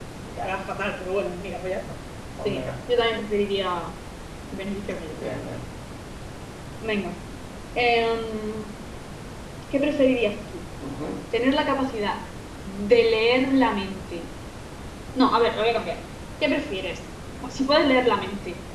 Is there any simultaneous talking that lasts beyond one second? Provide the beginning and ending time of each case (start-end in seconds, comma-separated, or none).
none